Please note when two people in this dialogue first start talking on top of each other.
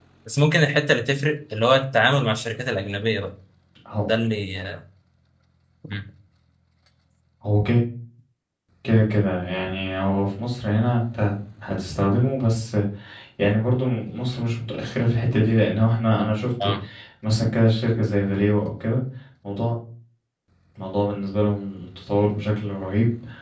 none

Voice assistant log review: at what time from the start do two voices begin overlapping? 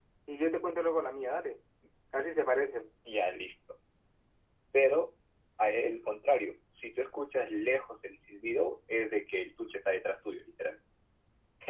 none

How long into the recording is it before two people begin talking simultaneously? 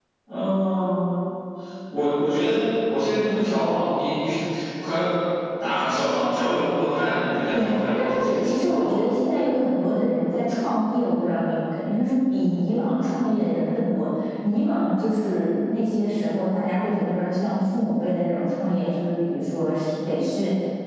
7.5 s

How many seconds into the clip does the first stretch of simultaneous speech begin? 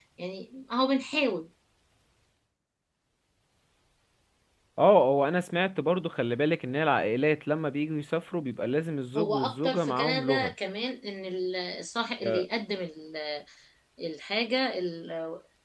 9.2 s

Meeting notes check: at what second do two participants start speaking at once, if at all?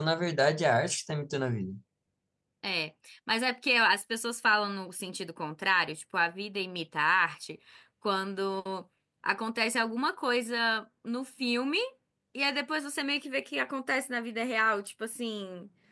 none

